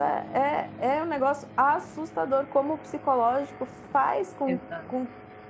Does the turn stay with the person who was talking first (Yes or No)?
Yes